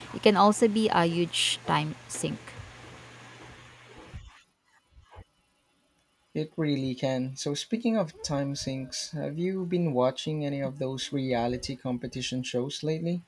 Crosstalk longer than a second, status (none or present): none